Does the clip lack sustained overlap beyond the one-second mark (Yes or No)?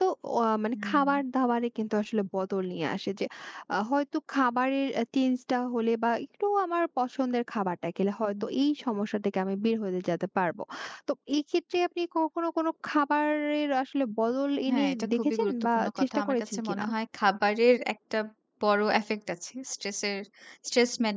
No